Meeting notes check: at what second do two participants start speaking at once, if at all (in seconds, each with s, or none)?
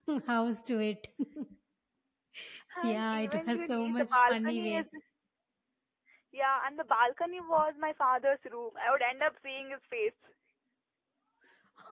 2.8 s